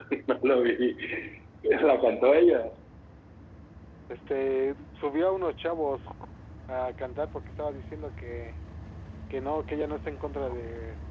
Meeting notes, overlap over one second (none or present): none